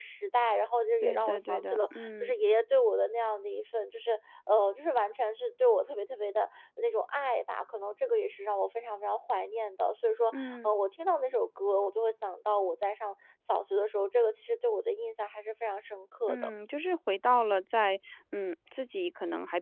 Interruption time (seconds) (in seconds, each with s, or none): 1.0 s